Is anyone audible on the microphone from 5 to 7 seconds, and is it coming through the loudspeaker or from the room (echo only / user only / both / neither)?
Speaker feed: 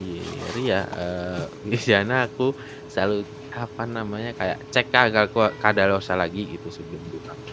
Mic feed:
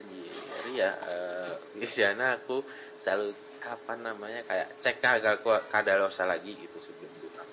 echo only